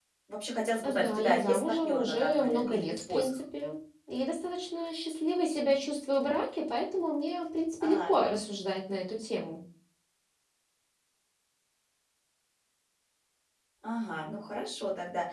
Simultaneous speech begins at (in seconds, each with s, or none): 0.8 s